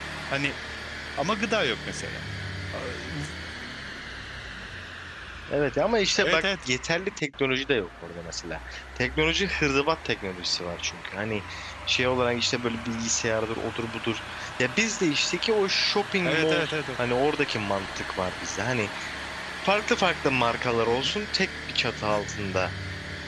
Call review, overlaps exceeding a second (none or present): none